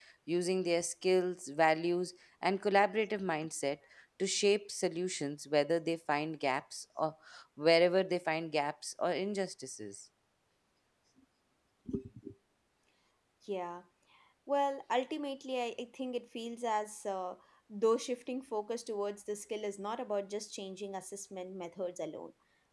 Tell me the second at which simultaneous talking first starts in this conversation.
none

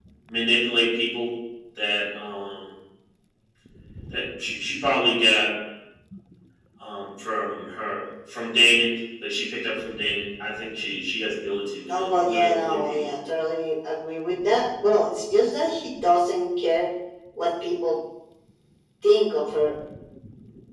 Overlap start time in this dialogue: 11.9 s

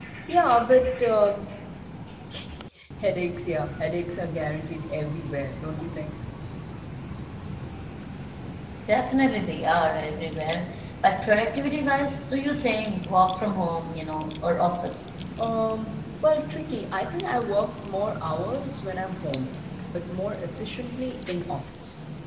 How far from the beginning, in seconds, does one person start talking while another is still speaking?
none

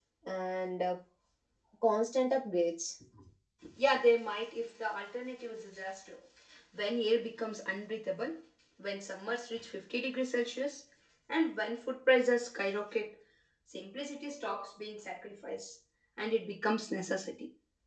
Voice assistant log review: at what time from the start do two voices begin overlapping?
none

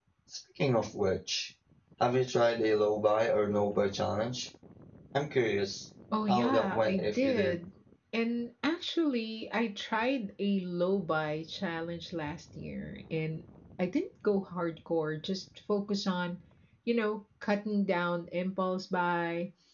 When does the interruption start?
6.1 s

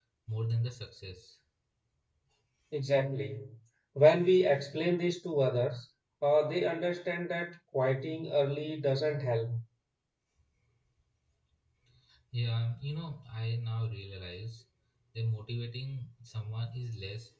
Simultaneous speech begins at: none

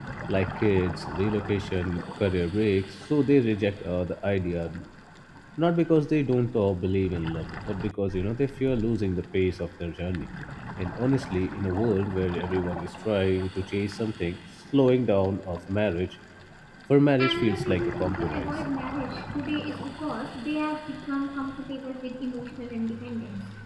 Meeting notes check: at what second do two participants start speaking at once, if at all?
17.2 s

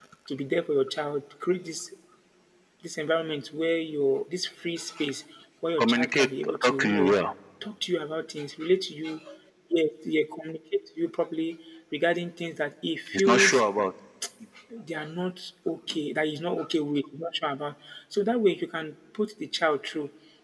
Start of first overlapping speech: 5.8 s

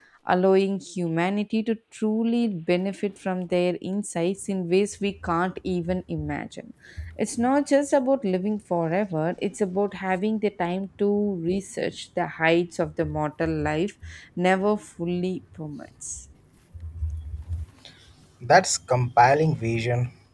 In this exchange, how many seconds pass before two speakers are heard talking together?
none

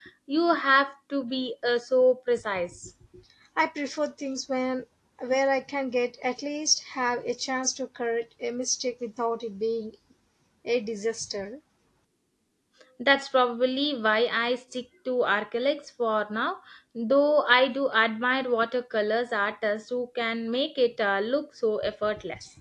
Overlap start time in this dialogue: none

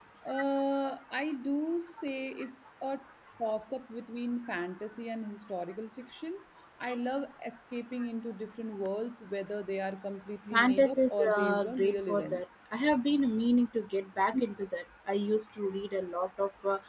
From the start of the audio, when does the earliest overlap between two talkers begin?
10.5 s

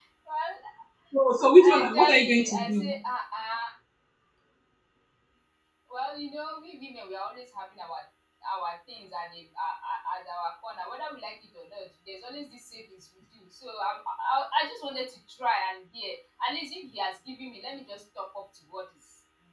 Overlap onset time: 1.6 s

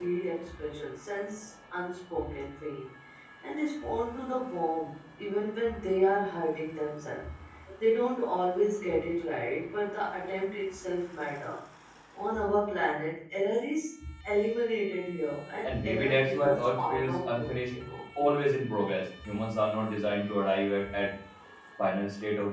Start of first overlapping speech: 15.6 s

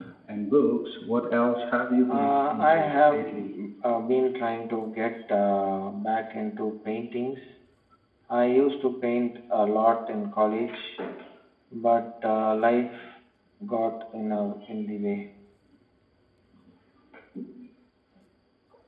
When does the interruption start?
2.1 s

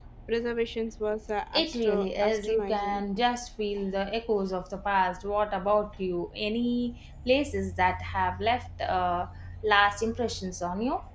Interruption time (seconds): 1.5 s

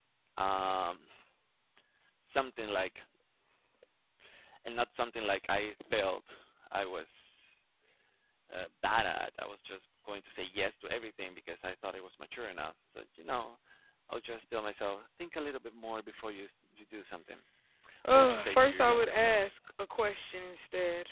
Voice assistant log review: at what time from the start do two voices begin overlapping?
18.1 s

